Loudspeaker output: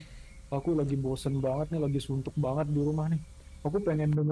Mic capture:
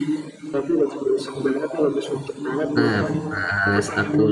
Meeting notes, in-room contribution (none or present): present